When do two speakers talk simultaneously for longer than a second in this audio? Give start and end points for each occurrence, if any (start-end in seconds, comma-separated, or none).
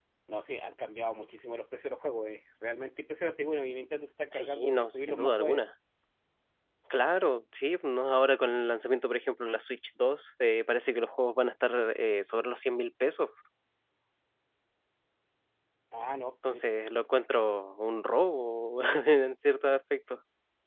4.3-5.6